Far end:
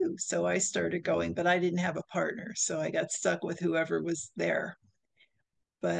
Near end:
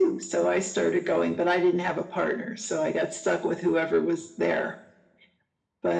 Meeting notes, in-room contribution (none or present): none